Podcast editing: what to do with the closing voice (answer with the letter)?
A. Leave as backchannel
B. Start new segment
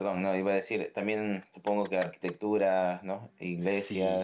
B